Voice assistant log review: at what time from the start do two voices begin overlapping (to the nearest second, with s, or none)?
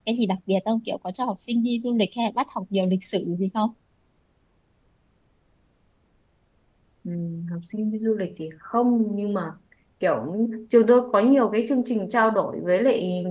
none